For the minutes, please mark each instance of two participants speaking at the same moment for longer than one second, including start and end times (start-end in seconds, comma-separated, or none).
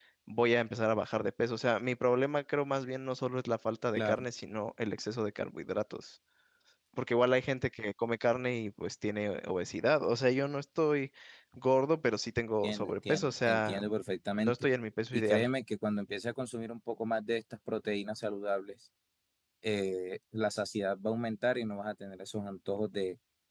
12.6-13.8